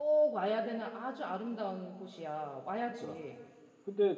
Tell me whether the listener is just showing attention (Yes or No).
No